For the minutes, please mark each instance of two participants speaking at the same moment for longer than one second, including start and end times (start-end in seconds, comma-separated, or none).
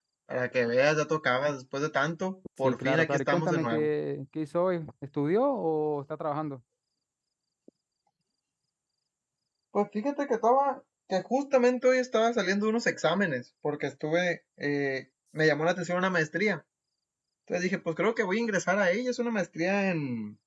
2.6-3.9